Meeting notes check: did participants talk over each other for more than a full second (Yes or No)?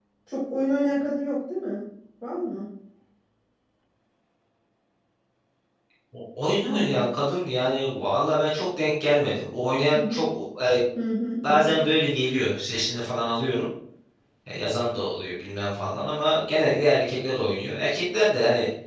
No